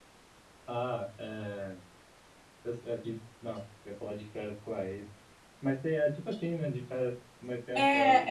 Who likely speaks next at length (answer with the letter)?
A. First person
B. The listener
B